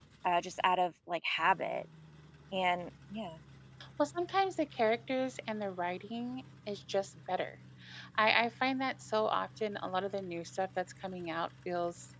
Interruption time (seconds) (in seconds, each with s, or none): none